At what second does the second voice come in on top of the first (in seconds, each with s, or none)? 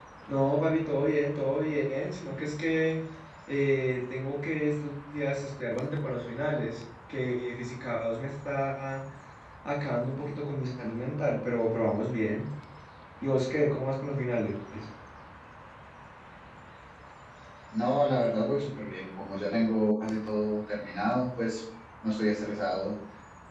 none